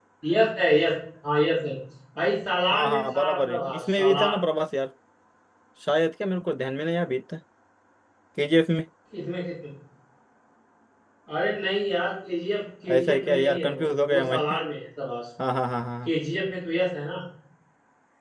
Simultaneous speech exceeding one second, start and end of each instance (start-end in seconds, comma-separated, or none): 2.7-4.4, 12.9-14.6